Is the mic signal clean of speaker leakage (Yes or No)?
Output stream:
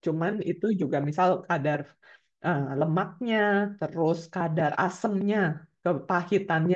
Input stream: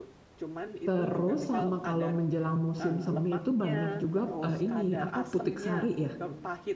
No